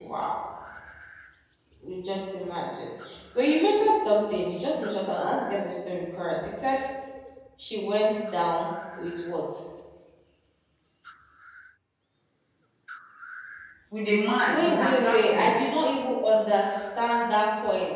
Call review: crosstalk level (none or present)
present